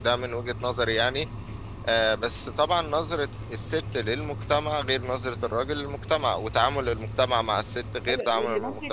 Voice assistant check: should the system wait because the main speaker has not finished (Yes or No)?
No